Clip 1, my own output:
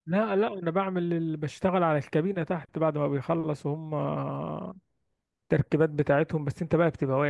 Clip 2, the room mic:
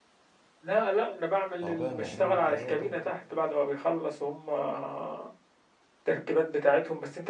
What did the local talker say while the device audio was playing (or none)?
تعبانة أكيد اه طبعا